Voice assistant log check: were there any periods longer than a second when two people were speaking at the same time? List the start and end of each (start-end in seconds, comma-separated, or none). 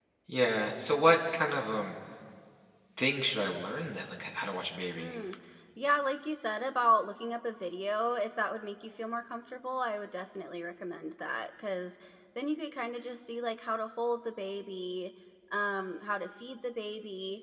none